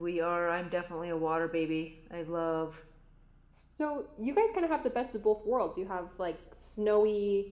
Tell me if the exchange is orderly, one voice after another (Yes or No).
Yes